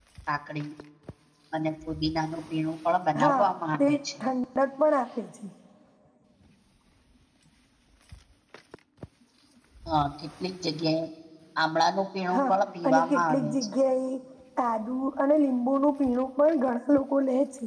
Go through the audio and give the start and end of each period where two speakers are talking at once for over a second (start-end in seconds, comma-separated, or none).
12.3-13.7